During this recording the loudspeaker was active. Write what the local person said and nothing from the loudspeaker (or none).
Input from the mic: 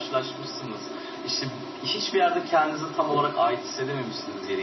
none